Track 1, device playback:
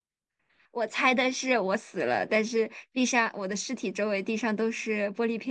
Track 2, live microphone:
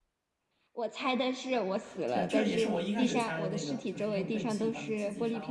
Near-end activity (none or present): present